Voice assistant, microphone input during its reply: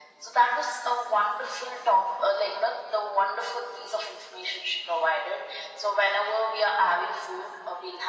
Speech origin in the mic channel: echo only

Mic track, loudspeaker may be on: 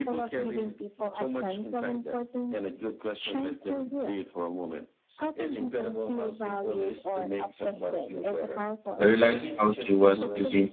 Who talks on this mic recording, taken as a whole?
both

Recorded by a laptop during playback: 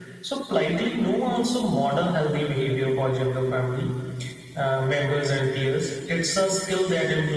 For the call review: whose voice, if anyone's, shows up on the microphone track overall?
echo only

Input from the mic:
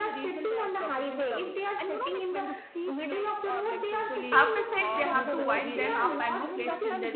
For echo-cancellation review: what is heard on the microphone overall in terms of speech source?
both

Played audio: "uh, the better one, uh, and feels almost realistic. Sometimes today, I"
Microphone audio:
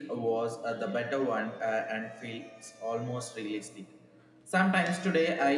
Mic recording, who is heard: echo only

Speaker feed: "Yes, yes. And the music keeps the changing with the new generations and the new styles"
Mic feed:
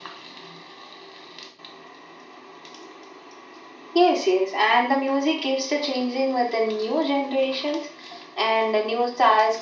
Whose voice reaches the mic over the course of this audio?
echo only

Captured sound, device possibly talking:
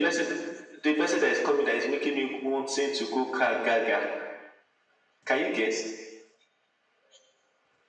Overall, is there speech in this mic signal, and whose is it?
echo only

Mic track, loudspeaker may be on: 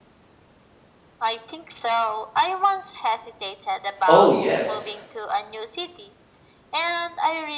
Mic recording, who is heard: both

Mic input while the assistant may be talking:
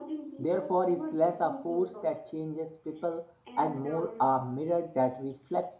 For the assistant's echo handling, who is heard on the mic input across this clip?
both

